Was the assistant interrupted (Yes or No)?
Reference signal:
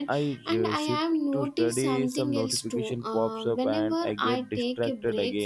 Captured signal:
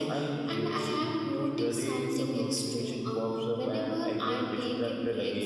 No